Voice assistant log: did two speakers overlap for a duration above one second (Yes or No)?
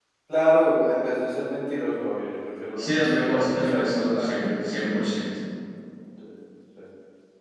Yes